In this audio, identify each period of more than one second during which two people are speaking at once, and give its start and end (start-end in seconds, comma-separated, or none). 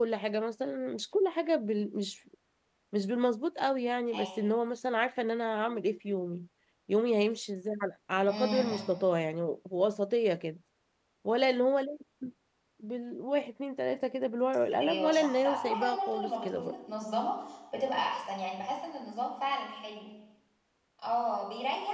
14.8-16.7